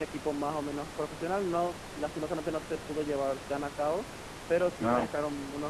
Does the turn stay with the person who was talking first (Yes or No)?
Yes